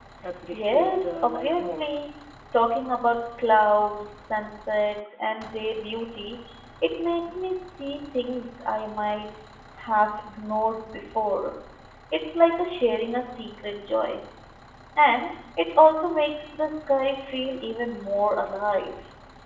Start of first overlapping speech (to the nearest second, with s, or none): 1 s